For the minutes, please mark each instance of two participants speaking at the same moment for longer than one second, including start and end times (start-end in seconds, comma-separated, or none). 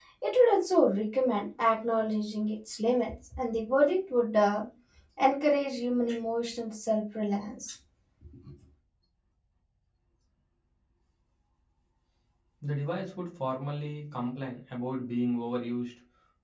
none